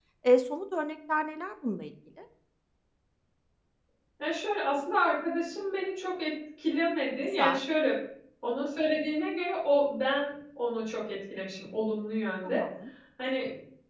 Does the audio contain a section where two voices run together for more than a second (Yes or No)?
No